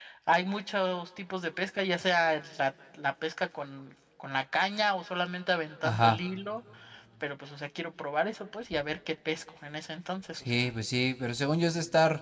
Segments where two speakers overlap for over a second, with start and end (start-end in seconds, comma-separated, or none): none